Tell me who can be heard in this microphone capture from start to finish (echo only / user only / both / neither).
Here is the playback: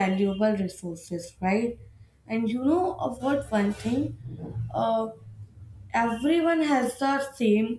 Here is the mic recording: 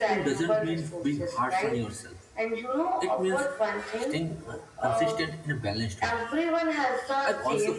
both